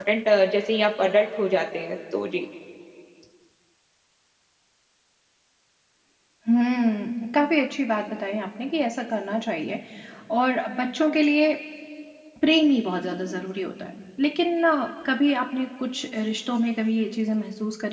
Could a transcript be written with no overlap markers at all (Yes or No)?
Yes